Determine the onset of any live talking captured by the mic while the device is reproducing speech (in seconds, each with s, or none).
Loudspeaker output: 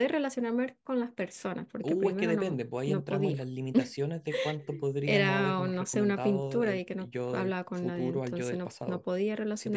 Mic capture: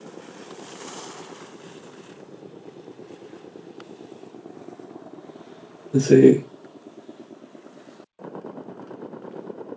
5.9 s